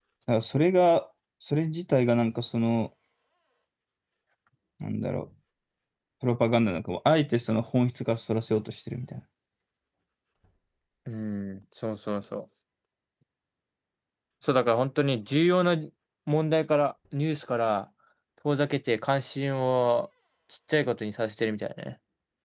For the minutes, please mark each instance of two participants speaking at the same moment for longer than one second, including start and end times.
none

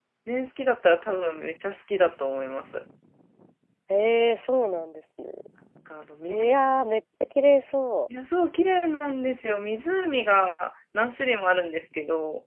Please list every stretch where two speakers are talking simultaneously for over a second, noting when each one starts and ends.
none

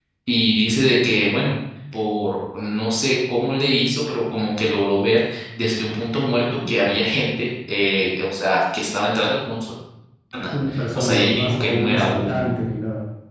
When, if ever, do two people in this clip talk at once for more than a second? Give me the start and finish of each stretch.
10.9-12.6

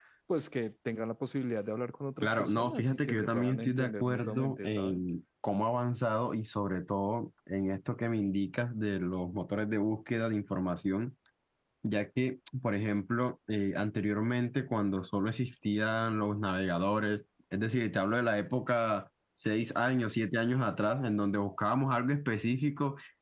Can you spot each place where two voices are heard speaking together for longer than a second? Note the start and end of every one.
2.2-5.0

